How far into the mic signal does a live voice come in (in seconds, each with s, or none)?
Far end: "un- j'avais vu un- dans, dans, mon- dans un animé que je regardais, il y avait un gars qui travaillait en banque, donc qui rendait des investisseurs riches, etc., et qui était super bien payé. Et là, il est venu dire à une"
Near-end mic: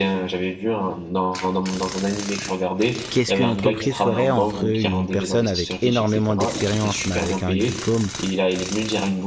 3.1 s